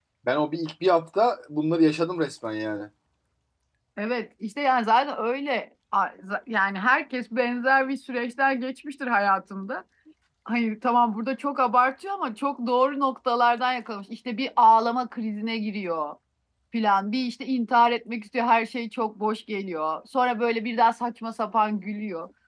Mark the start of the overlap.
none

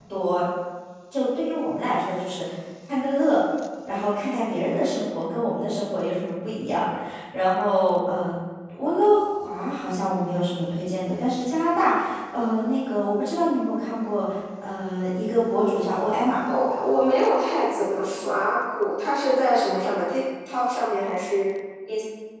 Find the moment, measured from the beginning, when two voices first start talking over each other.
none

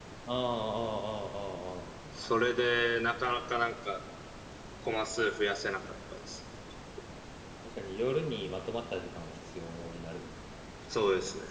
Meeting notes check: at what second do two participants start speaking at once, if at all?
none

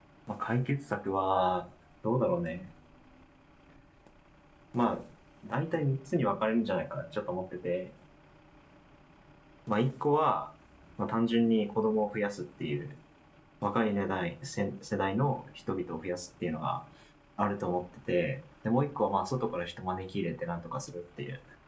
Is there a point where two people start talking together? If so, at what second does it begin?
none

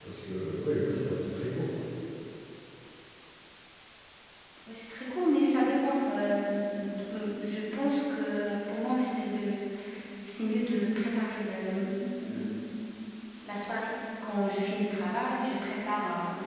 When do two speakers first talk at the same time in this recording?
none

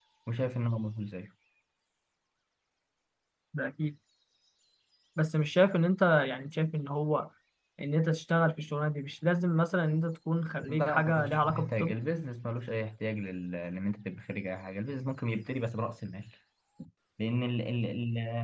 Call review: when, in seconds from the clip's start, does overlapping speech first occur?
10.6 s

